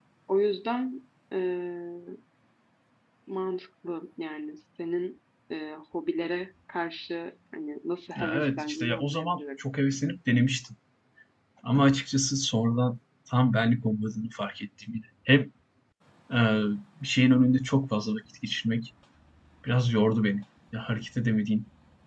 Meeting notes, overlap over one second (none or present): present